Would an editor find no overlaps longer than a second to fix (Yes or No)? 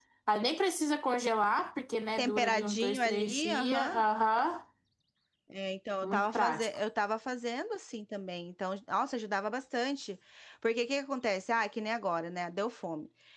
No